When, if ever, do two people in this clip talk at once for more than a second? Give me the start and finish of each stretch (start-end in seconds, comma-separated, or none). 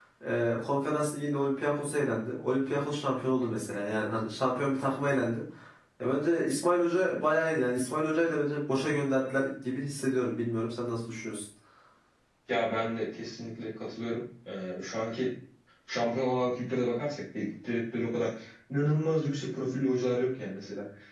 none